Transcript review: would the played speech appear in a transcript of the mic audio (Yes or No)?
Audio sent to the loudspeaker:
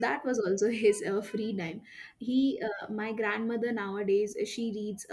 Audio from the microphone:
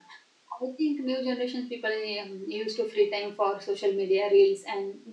No